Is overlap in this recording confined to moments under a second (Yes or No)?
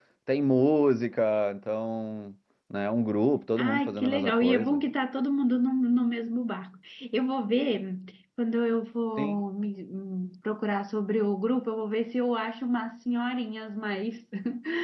No